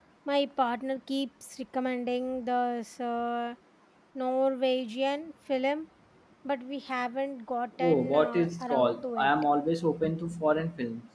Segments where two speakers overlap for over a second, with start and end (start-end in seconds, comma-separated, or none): 7.8-9.3